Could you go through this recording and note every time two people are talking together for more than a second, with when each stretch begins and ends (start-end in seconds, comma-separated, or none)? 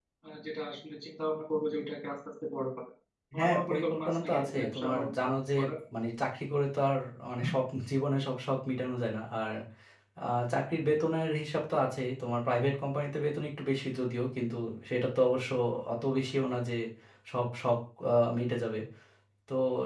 3.4-5.5